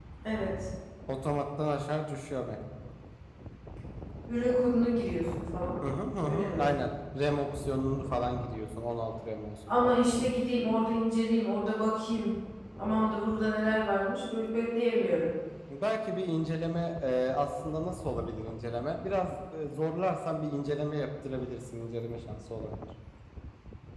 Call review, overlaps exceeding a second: none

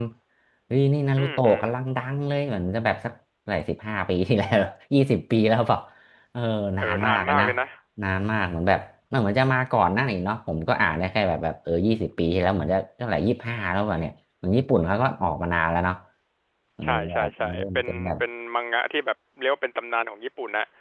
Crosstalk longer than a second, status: present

